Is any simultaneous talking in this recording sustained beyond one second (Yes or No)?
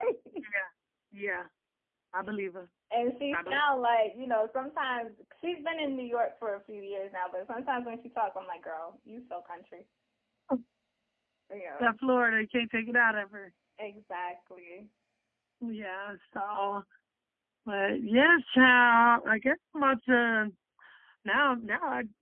No